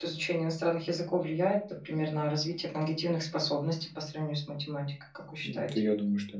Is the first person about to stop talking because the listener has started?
Yes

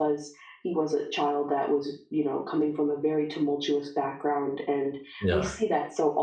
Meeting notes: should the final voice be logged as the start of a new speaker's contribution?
No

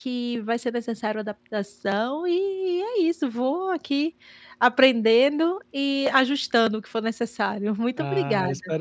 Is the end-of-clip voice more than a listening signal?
Yes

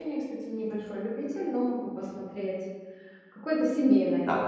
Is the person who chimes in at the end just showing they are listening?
No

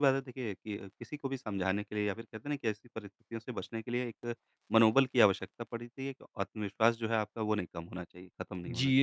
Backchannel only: No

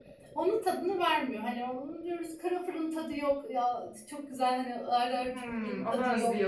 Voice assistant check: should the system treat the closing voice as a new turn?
Yes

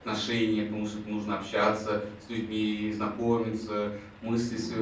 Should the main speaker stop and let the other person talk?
No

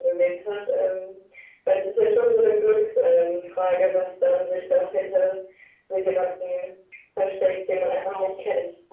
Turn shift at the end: Yes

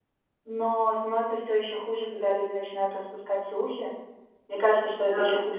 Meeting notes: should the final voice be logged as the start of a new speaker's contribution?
No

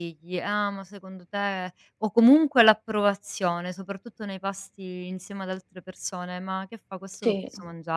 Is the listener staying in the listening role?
Yes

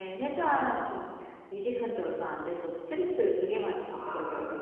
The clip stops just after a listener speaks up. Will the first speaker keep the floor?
No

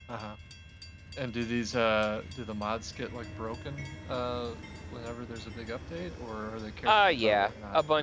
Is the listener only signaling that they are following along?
No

